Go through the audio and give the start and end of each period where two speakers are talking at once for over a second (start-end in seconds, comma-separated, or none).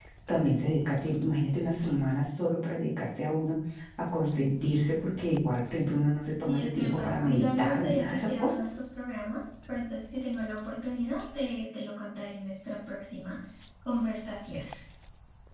6.5-8.5